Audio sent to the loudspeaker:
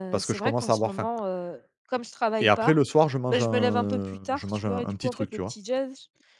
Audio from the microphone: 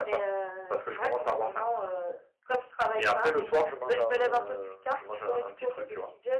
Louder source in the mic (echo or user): echo